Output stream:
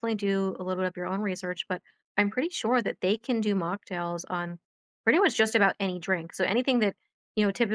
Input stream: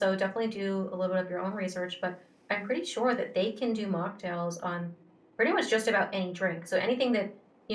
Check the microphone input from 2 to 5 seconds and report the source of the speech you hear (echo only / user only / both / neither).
echo only